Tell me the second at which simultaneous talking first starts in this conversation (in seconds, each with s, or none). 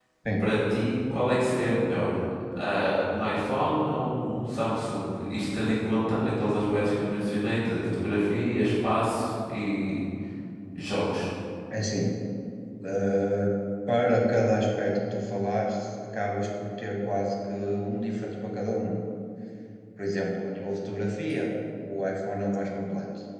none